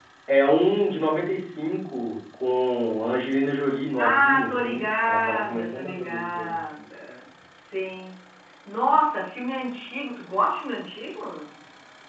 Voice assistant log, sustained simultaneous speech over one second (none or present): present